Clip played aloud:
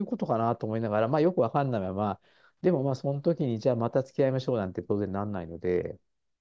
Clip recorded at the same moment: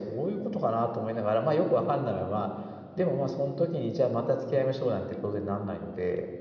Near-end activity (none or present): none